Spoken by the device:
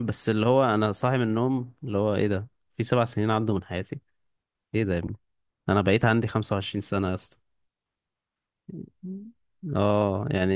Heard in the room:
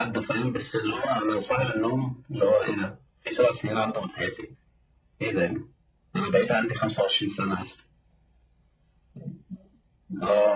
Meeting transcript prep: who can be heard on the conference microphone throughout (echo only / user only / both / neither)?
echo only